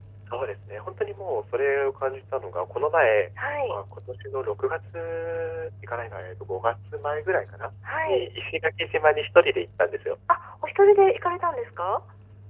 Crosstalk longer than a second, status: none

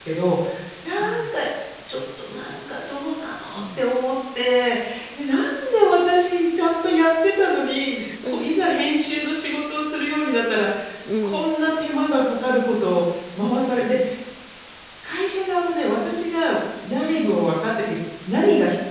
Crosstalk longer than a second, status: none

